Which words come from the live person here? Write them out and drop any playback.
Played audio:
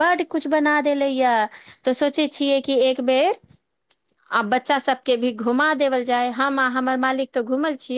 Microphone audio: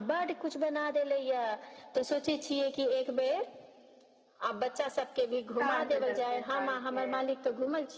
काज भेटल छै काज के

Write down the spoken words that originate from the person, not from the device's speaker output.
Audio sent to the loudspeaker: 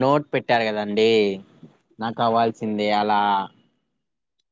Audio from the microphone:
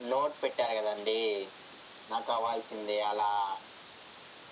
none

